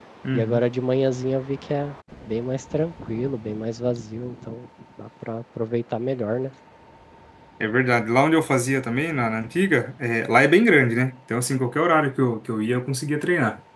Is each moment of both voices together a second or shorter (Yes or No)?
Yes